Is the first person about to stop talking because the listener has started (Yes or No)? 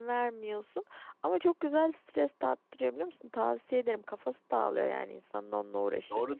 Yes